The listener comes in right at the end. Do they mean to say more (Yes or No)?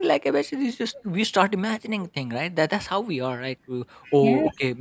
No